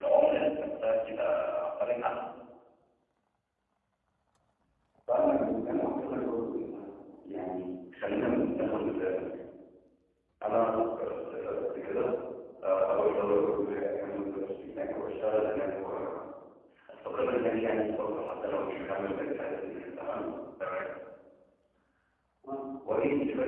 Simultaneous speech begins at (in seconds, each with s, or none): none